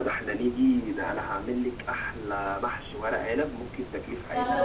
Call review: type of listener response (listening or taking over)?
taking over